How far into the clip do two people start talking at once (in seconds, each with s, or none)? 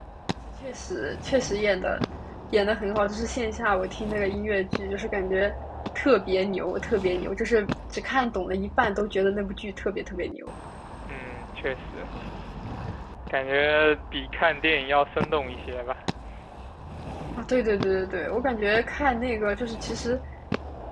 none